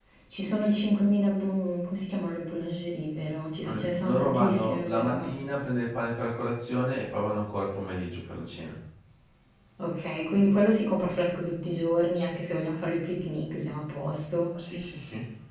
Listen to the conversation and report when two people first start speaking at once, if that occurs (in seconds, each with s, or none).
3.6 s